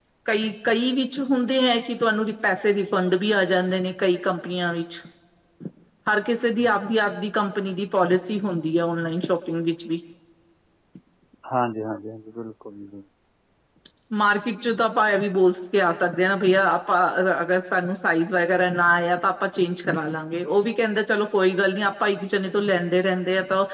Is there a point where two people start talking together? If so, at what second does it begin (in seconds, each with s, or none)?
none